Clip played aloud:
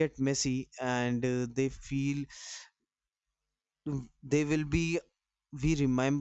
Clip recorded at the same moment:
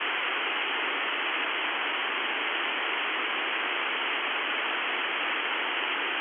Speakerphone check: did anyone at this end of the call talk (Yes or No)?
No